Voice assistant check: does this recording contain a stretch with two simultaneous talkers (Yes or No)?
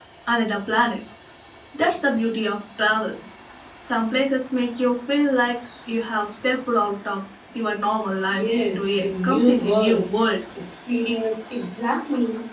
Yes